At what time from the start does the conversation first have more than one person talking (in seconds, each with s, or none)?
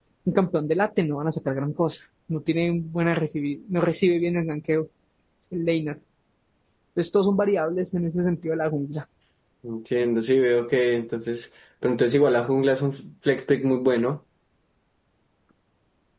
none